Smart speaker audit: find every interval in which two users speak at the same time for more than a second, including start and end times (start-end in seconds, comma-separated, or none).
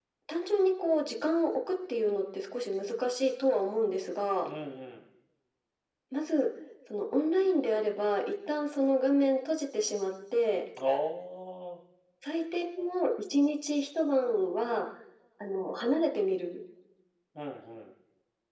none